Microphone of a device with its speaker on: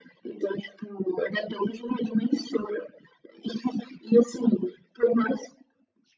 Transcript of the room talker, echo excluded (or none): none